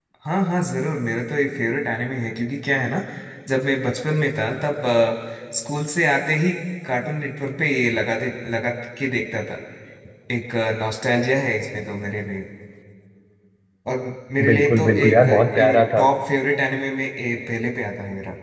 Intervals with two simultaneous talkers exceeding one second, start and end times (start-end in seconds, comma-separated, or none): 14.5-16.1